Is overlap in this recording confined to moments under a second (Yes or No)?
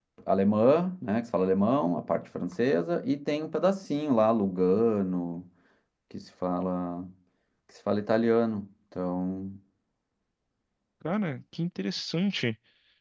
Yes